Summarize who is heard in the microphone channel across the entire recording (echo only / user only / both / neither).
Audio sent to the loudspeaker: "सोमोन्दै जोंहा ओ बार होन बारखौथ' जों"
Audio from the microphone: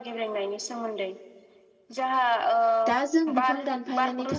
both